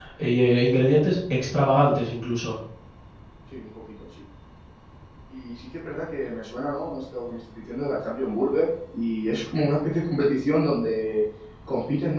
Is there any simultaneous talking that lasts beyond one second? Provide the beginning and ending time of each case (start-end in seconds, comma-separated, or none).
none